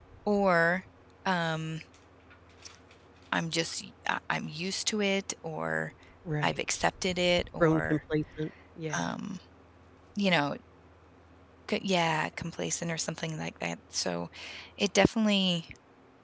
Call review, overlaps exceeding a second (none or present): none